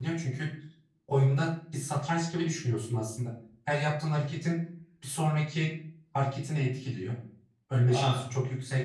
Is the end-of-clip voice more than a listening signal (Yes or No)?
No